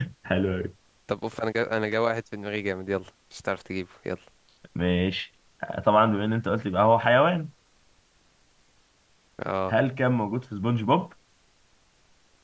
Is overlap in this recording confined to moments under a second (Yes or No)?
Yes